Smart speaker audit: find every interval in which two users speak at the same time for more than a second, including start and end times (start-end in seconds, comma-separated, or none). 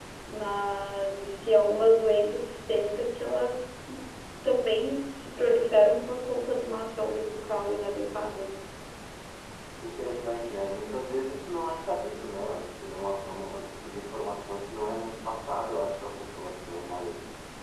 none